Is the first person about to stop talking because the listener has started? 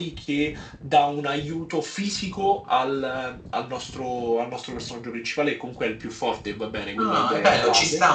Yes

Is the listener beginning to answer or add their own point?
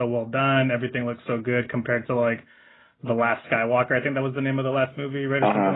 Yes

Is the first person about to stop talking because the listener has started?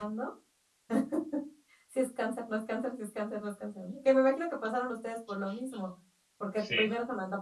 No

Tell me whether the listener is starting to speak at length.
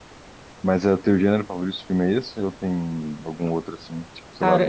Yes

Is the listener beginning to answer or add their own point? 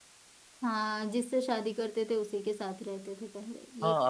Yes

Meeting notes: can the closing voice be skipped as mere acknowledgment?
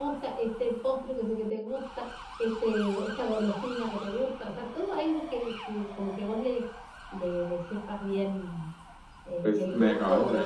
No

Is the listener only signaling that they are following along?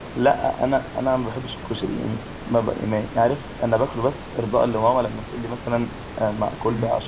Yes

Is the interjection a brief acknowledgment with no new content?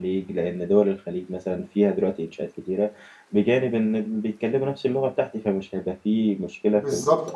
No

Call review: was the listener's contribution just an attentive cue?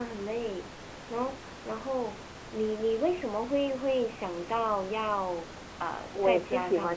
No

